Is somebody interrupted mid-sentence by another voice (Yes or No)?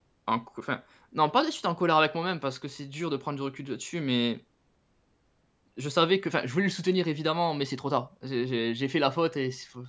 No